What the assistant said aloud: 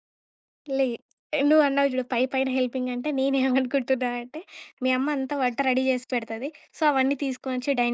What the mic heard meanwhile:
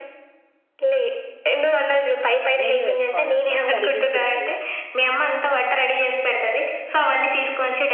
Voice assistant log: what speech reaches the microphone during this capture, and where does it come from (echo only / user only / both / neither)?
both